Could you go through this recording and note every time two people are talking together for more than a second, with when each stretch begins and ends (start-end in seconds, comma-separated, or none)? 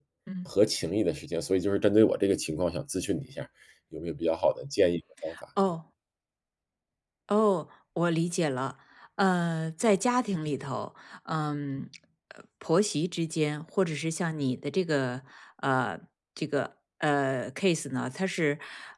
none